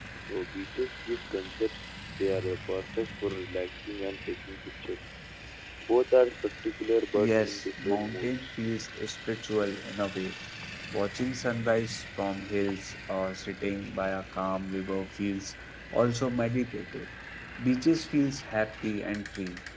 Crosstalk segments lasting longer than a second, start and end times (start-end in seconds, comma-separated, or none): 7.1-8.5